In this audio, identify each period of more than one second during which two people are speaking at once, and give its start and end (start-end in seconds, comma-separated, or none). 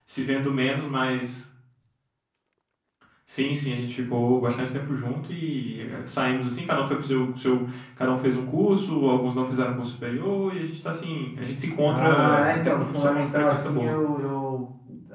11.8-13.9